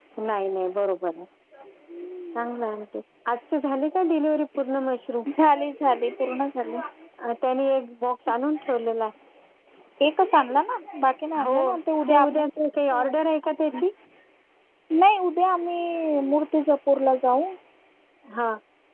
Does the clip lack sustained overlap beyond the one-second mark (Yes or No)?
Yes